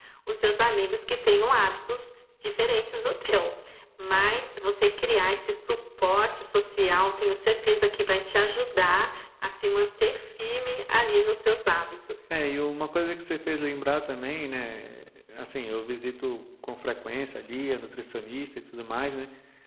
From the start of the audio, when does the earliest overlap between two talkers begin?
none

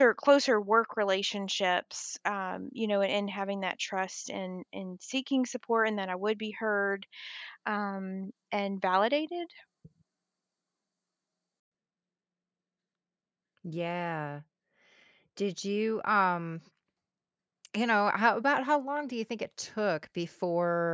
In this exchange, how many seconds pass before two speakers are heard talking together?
none

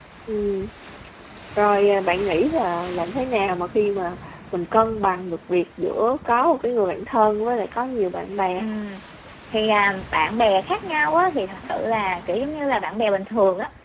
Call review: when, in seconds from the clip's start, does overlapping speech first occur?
none

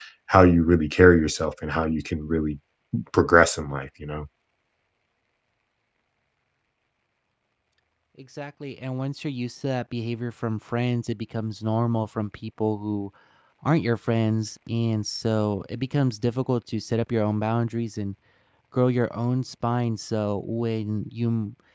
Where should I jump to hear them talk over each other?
none

